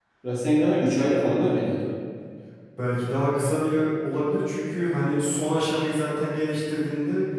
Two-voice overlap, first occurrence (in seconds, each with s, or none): none